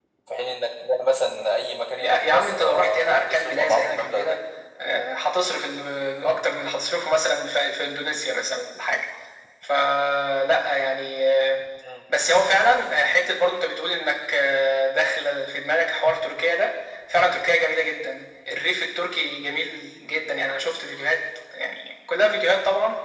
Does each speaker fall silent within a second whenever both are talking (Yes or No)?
No